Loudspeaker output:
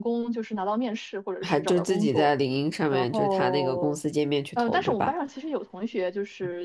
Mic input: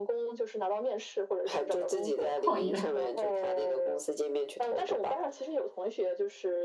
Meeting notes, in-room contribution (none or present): present